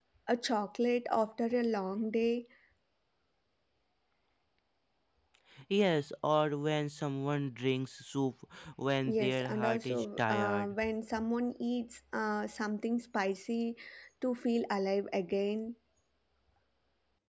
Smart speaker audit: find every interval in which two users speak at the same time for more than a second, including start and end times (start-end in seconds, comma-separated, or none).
9.0-10.8